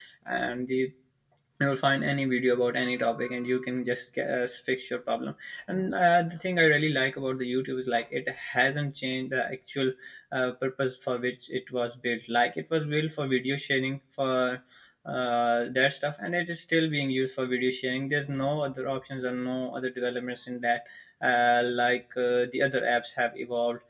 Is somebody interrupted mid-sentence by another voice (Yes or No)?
No